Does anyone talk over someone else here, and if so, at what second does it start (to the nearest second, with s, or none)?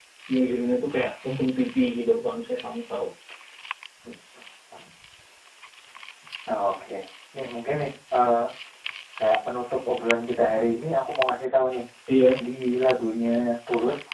none